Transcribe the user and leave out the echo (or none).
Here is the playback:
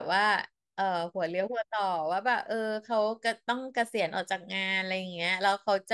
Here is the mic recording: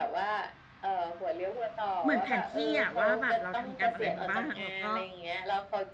เหมือนแผนที่อะว่าแบบเราทำกรรมอะไรมาบ้างแล้วก็